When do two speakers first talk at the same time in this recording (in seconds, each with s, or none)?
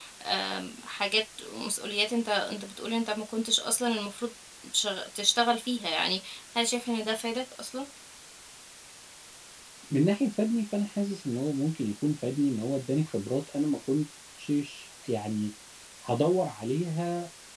none